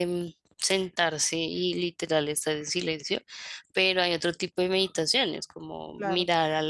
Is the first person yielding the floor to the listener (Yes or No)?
No